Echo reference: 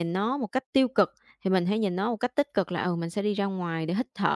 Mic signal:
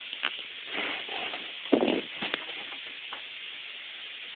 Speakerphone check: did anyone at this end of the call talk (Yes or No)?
No